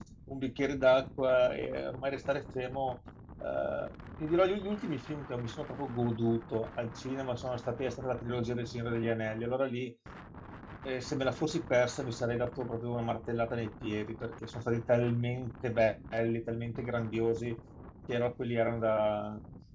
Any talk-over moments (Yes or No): No